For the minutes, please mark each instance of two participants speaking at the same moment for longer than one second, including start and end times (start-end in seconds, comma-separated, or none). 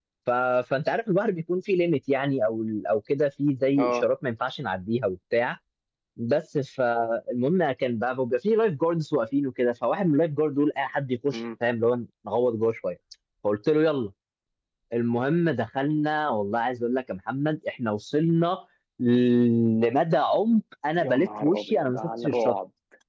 21.0-22.6